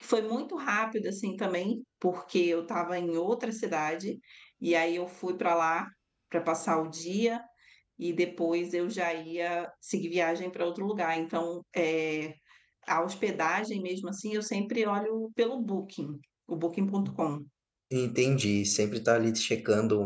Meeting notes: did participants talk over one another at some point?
No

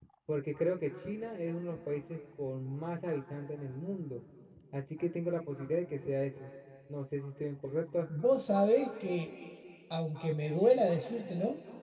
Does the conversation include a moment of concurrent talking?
No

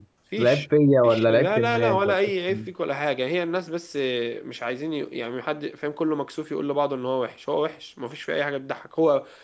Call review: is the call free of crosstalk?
No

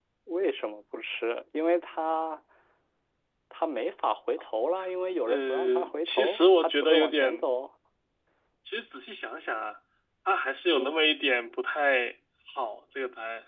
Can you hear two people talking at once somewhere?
Yes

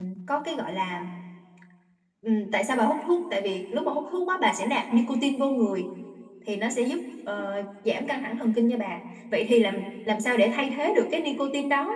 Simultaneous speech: No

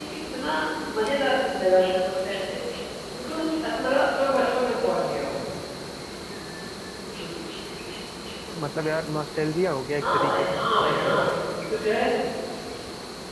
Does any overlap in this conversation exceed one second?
Yes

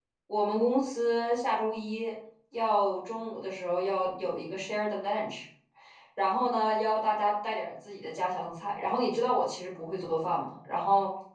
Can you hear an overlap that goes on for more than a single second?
No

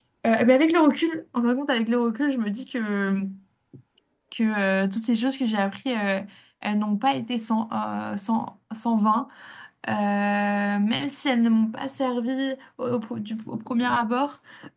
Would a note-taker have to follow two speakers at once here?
No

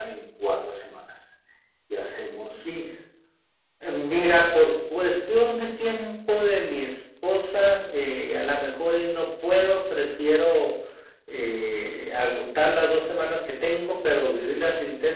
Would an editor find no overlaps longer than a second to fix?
Yes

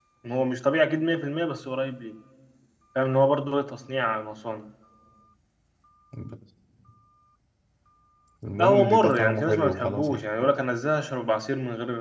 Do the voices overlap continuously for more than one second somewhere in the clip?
Yes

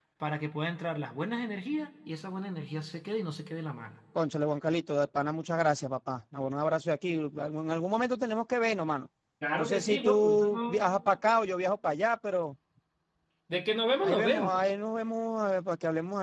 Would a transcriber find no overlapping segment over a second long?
No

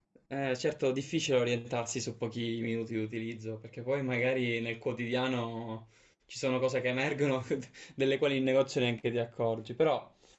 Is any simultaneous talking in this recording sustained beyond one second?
No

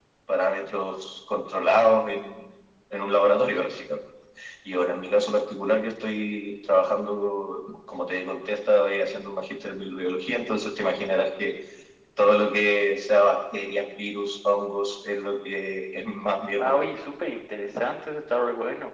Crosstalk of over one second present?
No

